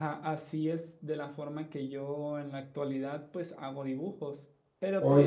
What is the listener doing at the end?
listening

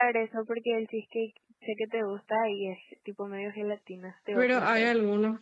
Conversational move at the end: taking over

